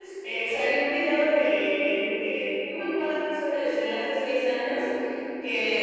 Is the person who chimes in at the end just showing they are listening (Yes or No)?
Yes